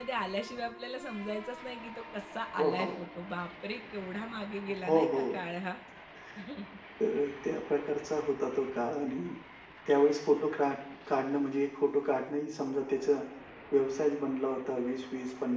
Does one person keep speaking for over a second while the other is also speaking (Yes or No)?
No